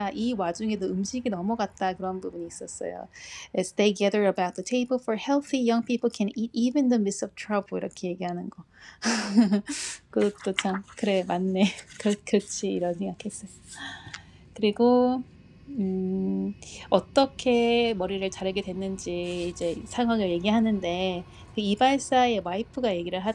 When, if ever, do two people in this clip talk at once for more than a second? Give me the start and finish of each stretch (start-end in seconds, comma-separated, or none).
none